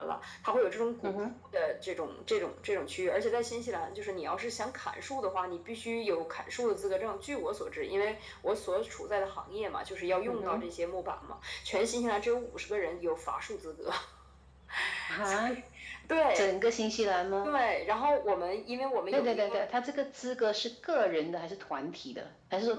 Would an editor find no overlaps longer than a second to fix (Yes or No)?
Yes